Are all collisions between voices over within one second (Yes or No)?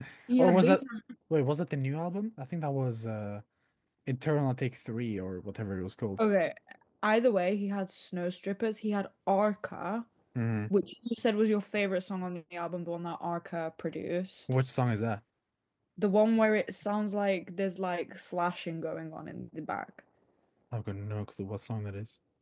Yes